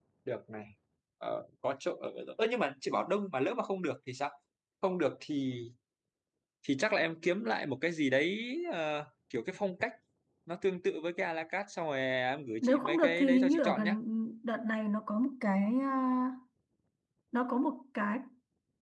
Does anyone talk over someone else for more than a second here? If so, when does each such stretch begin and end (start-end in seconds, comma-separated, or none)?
12.6-14.0